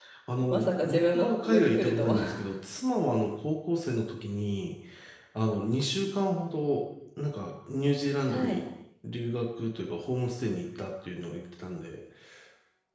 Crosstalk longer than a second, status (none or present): present